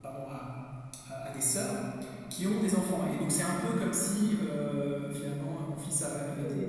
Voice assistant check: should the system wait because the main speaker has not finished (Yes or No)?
No